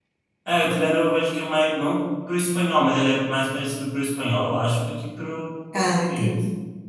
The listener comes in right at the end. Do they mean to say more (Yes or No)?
No